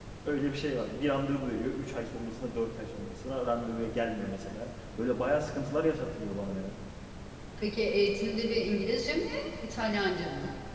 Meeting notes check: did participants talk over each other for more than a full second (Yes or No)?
No